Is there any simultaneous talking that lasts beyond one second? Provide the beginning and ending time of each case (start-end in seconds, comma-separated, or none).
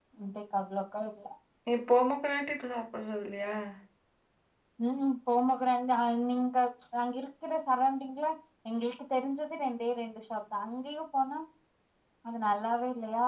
none